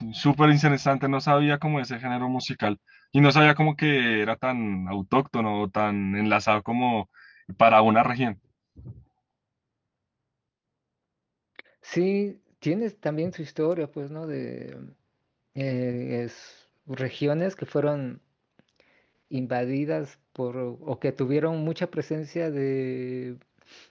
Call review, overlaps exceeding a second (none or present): none